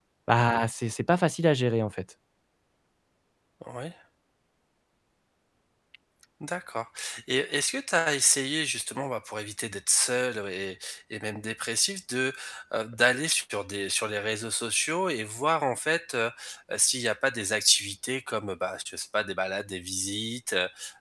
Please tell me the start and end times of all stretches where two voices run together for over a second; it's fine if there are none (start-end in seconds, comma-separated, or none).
none